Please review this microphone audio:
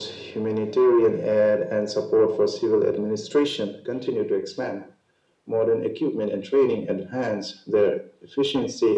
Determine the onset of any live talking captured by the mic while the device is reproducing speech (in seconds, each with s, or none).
none